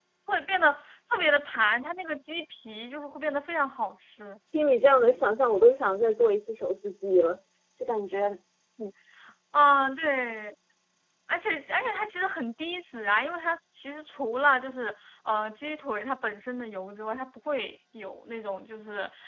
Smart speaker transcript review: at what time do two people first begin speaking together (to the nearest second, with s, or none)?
none